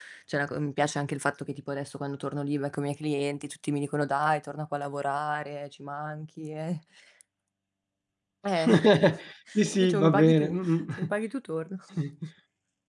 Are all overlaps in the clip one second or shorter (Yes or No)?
No